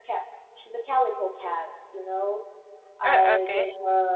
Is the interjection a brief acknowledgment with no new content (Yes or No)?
Yes